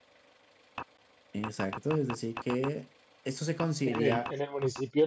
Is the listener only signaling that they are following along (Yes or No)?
No